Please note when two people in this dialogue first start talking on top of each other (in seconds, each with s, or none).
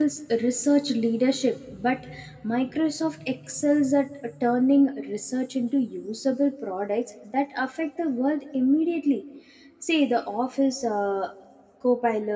none